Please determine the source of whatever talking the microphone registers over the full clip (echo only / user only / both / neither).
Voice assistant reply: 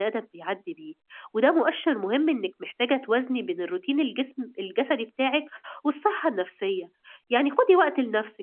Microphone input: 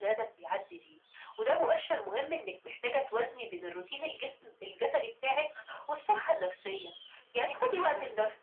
both